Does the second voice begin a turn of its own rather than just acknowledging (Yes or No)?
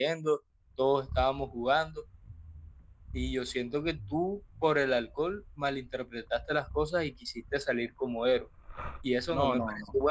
Yes